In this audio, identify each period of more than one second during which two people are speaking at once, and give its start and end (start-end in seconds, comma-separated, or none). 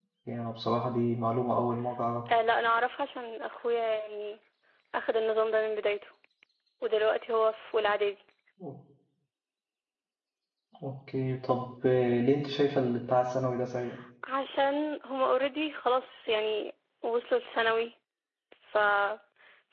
none